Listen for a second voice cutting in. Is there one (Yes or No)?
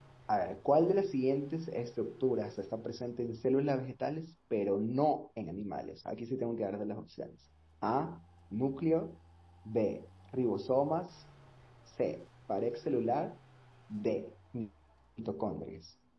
No